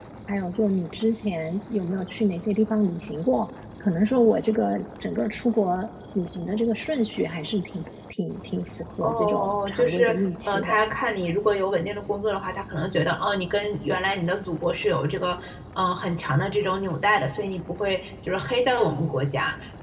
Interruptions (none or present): present